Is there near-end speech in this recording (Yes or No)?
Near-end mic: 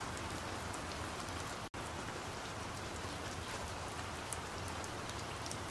No